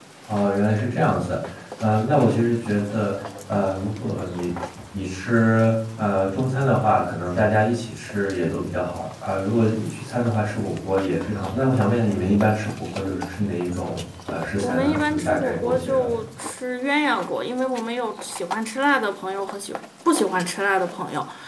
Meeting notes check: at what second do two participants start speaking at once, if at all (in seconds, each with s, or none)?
14.6 s